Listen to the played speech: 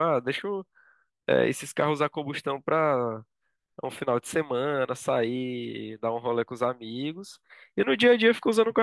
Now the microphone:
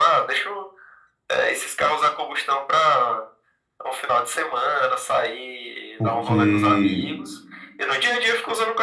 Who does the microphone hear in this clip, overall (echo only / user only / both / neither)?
both